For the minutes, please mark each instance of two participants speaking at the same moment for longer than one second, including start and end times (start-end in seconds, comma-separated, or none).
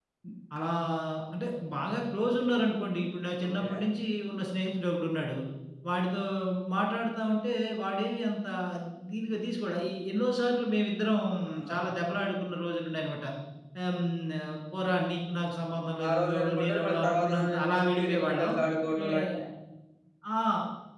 16.1-18.5